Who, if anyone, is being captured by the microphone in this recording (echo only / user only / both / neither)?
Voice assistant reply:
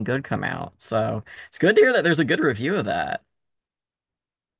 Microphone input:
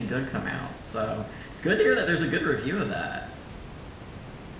echo only